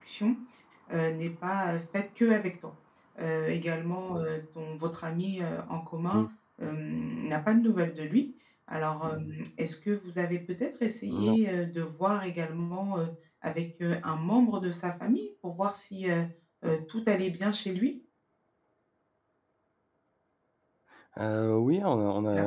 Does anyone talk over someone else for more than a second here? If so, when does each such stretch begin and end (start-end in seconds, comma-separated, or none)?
none